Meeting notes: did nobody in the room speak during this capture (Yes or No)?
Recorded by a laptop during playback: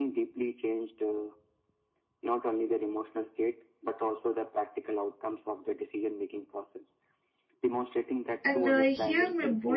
No